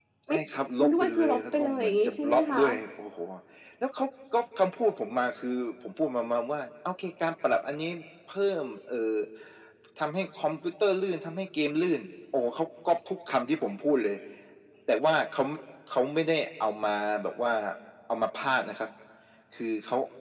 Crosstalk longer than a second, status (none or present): present